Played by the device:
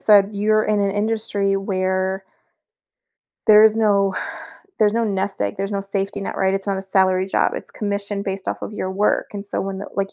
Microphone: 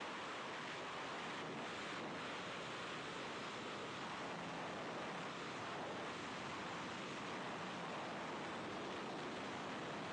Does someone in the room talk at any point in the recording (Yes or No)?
No